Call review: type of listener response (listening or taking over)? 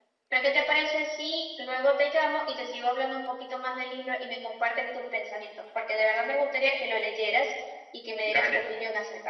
taking over